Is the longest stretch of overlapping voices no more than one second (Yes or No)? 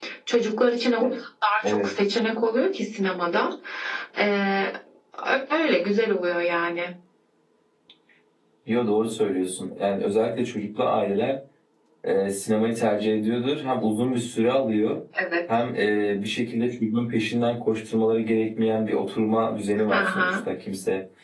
Yes